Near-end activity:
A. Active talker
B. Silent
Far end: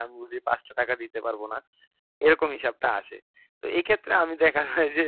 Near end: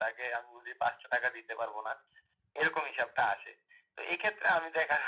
B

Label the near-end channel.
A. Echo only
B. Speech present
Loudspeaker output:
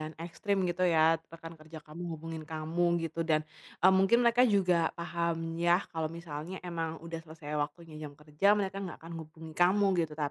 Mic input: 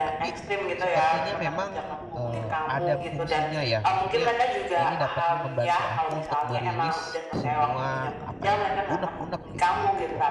B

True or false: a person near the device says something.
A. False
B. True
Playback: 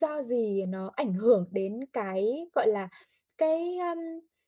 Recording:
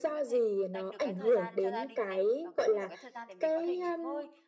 B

